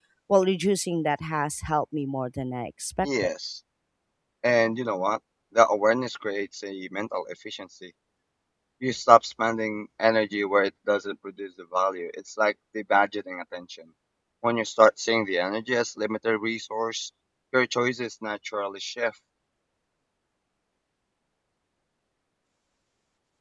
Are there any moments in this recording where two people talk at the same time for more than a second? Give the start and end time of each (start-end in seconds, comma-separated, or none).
none